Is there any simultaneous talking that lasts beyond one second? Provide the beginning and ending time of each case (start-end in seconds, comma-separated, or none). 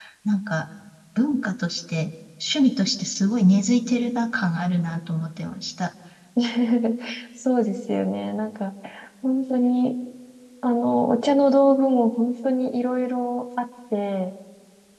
none